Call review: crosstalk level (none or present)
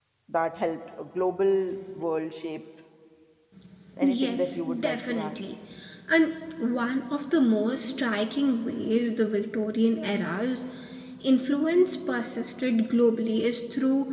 present